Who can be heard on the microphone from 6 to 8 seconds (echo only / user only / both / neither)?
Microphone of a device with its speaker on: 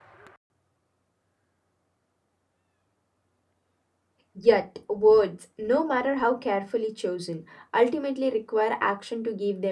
user only